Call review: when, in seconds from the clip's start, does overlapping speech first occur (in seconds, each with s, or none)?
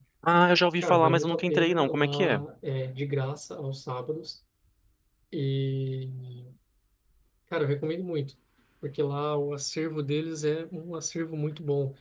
0.8 s